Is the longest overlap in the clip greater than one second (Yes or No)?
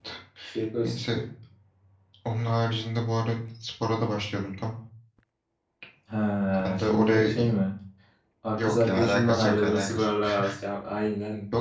Yes